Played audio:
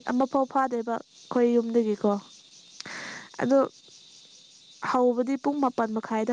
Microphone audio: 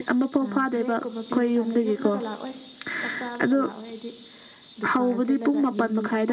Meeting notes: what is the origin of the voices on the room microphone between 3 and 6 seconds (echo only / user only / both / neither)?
both